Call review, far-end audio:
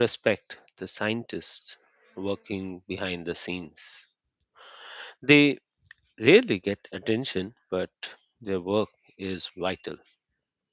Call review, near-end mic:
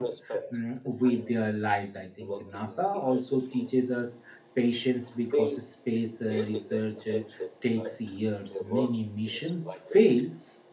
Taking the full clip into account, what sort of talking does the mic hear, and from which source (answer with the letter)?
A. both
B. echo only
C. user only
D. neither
A